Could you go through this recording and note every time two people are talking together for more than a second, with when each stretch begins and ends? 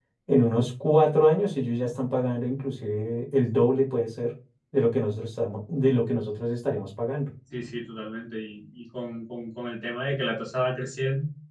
none

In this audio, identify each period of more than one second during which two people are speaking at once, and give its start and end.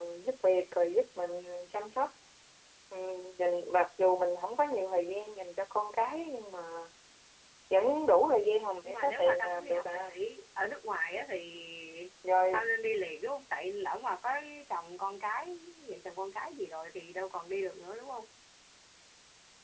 8.8-10.2

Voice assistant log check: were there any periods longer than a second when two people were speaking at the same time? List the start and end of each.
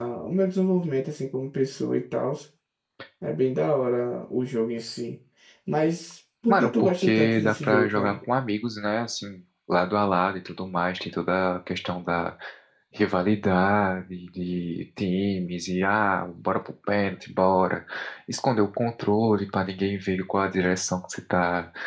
6.5-8.2

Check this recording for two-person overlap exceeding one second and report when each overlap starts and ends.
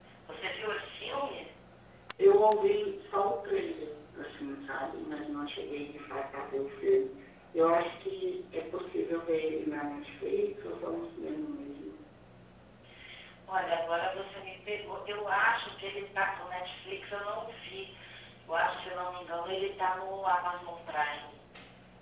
none

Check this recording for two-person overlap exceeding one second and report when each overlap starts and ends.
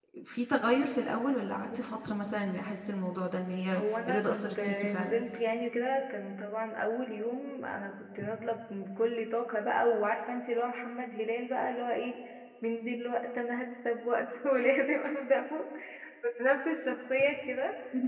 3.7-5.2

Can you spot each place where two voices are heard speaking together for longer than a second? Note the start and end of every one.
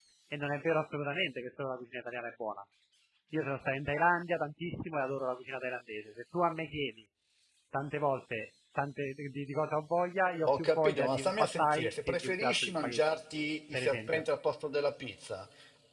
10.6-13.0

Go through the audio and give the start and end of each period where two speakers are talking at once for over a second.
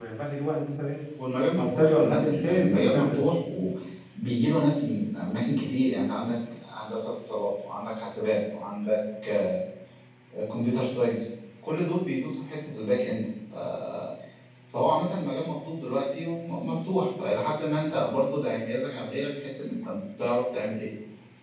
1.6-3.2

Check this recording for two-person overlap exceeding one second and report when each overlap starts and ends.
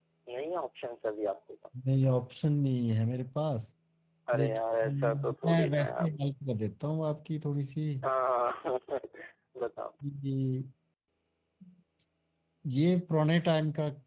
4.3-6.1

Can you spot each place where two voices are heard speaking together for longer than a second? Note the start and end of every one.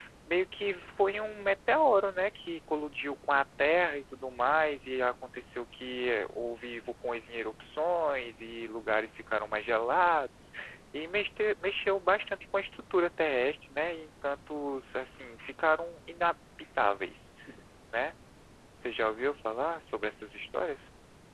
none

